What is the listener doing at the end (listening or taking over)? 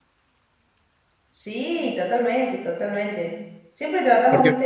listening